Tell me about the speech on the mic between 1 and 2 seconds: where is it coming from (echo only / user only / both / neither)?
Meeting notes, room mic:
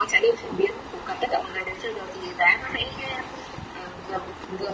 echo only